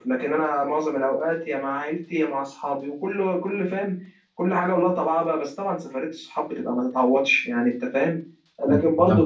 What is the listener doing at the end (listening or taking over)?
listening